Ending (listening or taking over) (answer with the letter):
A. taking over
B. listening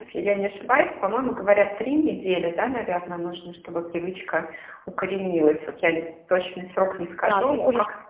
A